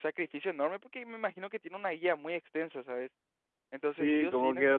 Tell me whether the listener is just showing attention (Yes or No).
No